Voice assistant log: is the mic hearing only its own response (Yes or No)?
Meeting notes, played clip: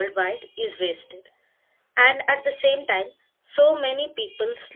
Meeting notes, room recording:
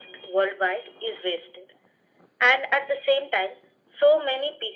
Yes